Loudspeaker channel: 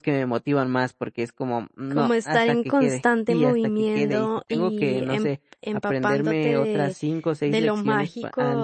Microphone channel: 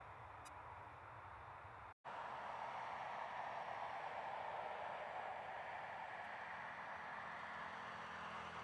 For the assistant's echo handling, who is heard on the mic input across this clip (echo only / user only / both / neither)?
neither